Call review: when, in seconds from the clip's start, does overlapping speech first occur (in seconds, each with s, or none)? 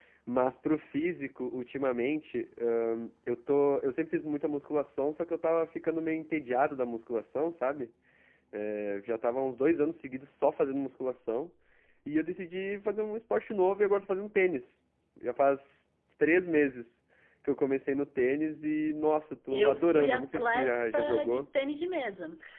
19.5 s